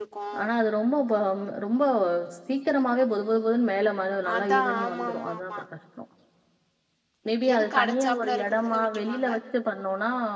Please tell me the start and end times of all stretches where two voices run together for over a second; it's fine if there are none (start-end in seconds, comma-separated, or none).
4.4-5.6, 7.5-9.3